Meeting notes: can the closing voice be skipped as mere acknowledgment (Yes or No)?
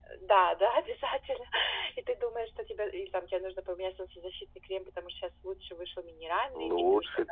No